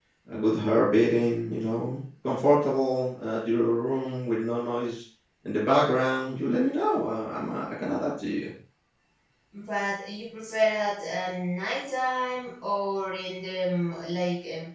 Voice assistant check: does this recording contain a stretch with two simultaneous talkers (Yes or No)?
No